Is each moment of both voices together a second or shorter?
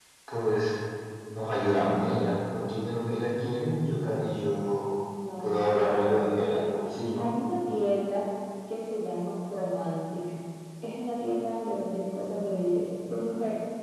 No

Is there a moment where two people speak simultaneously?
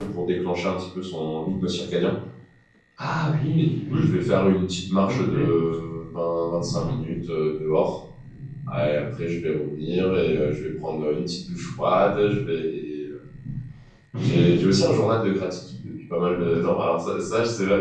Yes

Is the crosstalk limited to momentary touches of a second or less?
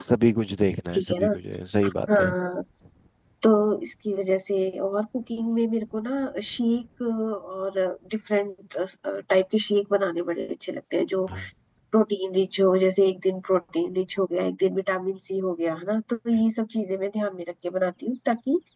Yes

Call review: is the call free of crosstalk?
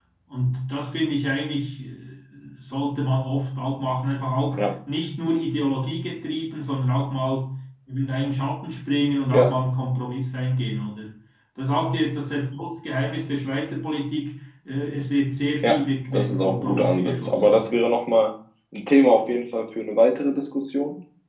No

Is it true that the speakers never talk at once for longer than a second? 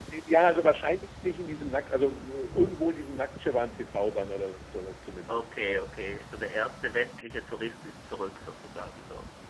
Yes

